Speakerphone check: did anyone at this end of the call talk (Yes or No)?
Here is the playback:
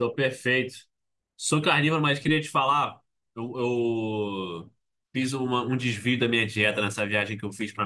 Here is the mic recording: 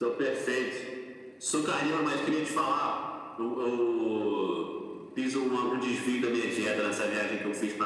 No